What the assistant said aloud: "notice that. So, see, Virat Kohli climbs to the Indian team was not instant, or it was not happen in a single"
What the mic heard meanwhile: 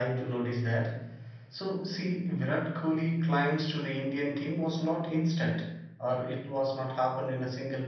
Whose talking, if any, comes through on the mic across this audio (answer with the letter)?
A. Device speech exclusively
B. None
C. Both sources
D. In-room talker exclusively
A